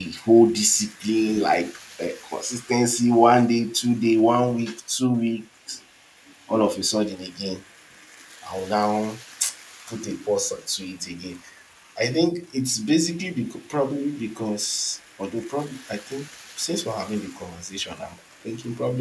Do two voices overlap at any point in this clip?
No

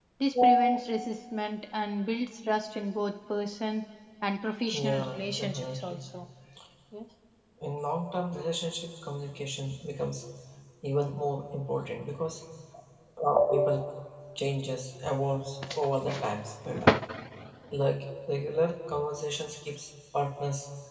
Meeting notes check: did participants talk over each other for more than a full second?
Yes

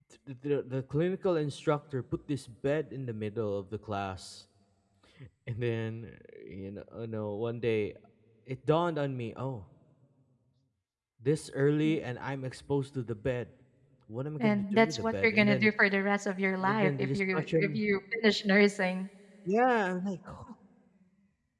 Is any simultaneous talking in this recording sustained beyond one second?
Yes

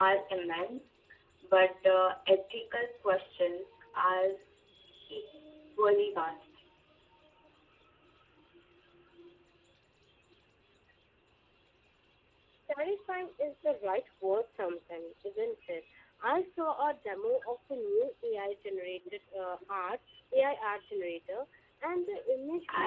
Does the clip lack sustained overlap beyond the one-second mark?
Yes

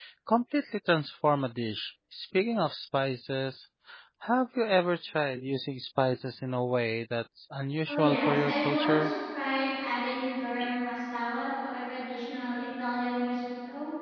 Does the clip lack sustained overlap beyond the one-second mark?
No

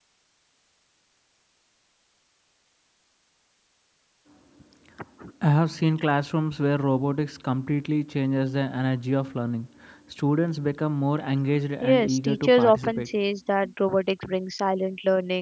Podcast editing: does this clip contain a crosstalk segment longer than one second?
Yes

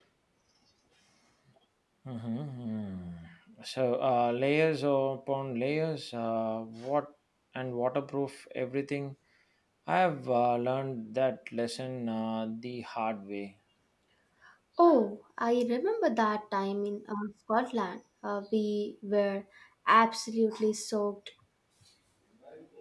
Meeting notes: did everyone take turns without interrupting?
Yes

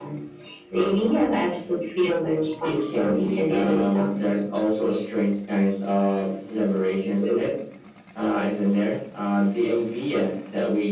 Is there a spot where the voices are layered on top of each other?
Yes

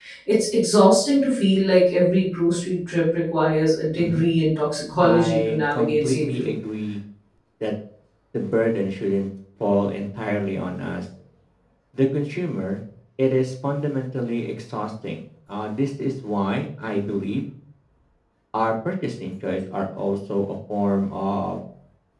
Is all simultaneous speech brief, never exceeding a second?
No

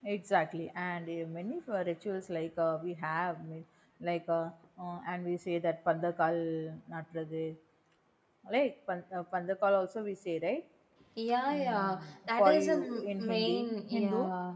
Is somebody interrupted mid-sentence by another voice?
Yes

